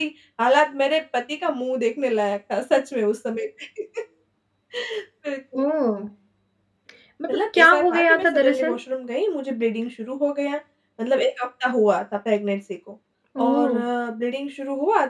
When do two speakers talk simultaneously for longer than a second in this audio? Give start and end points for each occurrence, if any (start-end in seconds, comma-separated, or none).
7.3-8.8